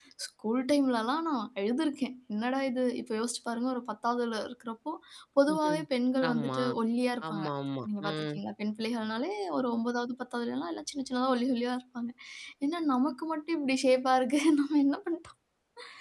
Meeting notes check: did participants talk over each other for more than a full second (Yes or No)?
No